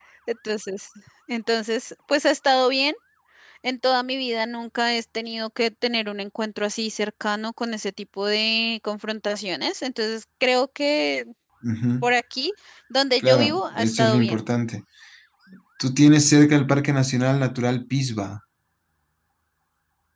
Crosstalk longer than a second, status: present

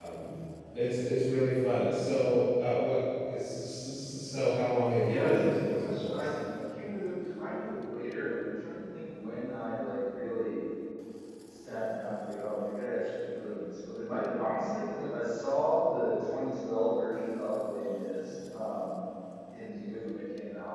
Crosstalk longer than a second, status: present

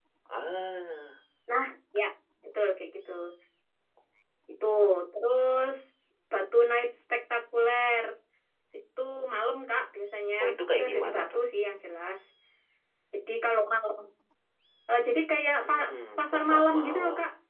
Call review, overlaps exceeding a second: present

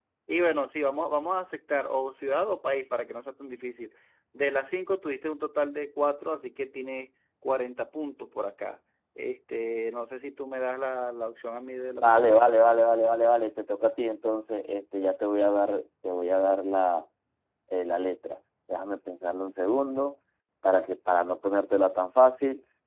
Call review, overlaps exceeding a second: none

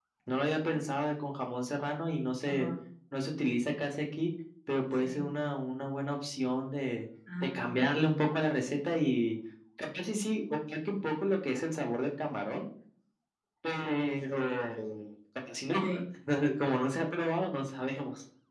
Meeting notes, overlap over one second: none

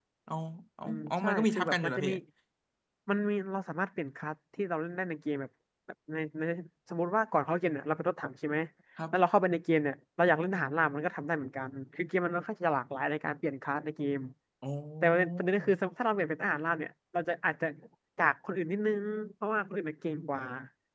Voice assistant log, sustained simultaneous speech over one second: present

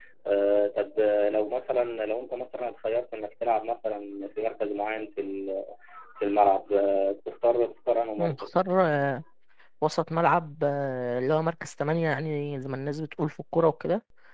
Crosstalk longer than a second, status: none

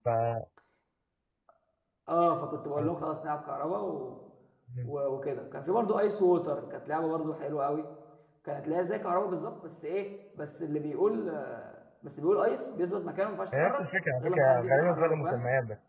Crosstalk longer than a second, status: present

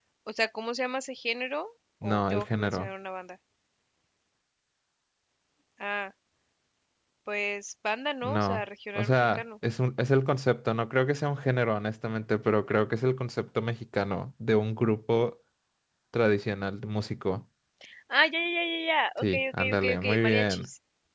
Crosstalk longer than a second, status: present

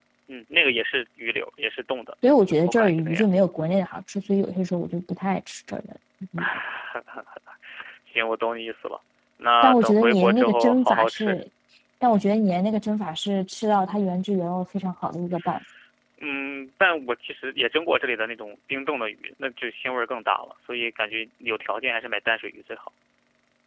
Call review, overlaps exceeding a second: present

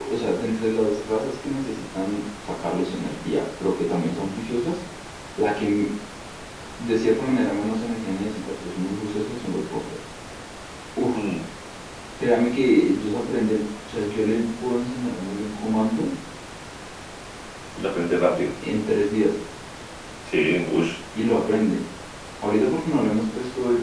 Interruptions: none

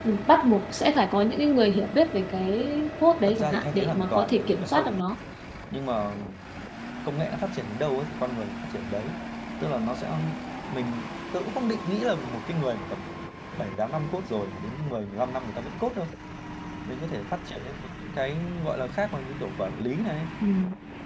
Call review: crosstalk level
present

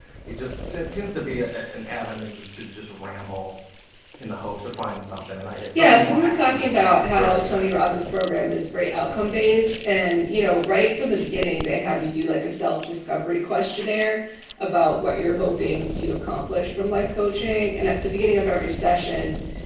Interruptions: present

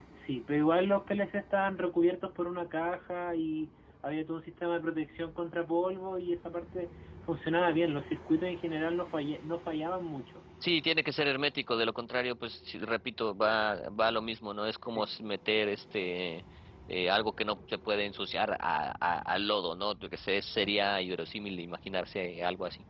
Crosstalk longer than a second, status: none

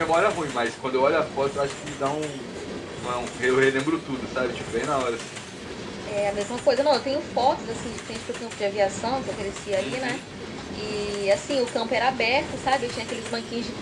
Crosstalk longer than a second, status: none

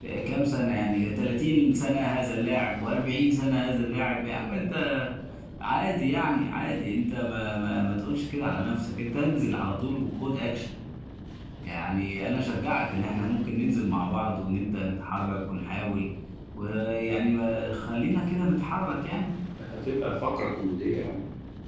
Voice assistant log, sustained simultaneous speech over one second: none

